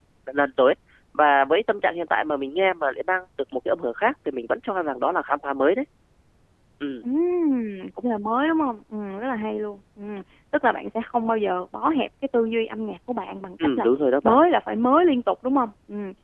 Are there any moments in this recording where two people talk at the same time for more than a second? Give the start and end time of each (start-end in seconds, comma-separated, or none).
none